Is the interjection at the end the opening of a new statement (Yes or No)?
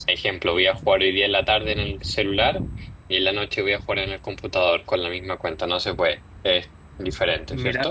Yes